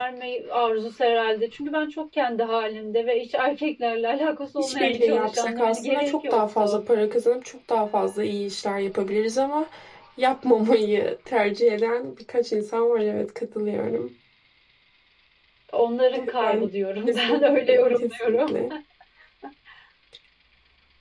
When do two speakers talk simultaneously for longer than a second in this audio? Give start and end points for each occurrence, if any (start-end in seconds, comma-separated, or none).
4.6-6.8, 17.1-18.5